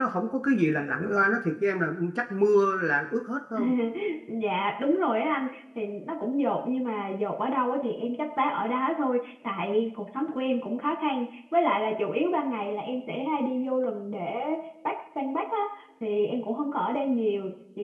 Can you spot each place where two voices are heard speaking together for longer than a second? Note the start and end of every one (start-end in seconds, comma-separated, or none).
none